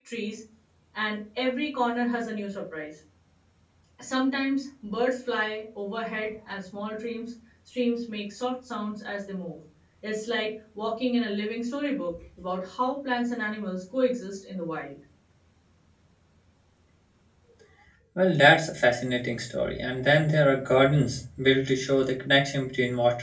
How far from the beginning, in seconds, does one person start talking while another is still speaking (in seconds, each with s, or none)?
none